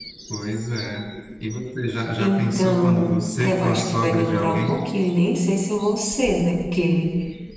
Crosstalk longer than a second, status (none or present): present